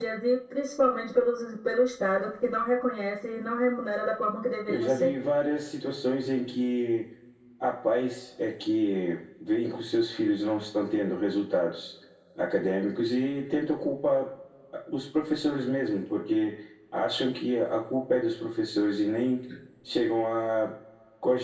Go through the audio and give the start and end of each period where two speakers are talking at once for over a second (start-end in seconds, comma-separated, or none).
none